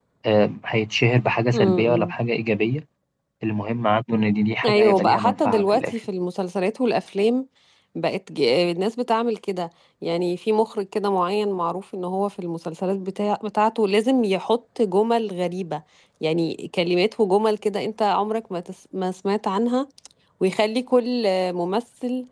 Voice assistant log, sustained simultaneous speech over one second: present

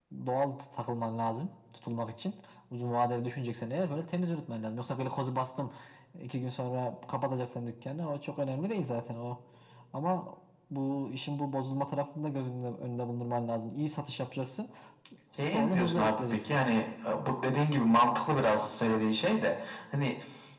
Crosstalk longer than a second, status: present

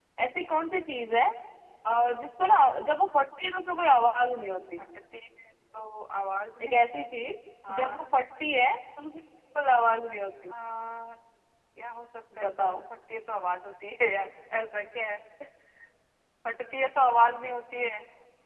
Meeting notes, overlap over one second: none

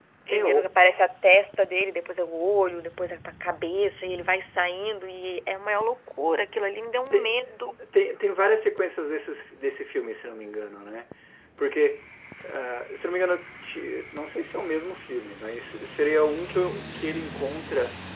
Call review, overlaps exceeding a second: none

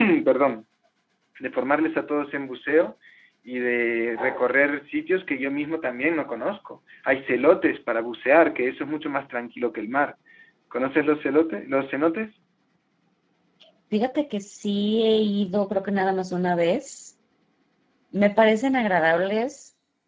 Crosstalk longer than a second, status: none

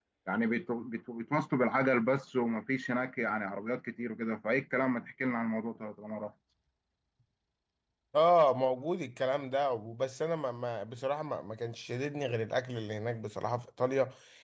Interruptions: none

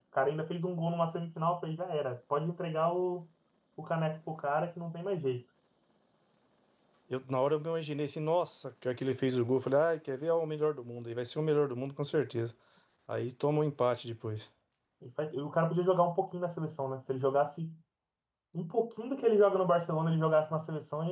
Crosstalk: none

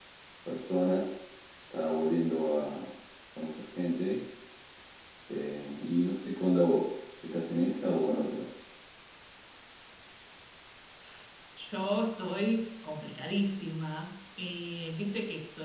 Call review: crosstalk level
none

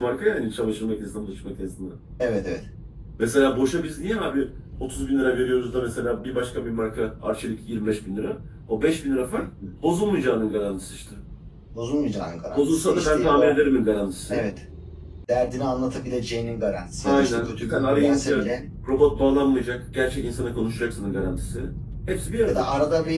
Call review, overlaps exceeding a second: present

